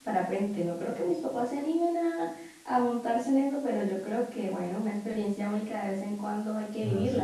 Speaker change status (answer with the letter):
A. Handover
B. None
A